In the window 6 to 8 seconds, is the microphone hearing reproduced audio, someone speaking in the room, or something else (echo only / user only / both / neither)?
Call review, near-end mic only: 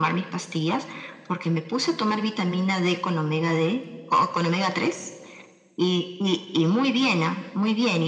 echo only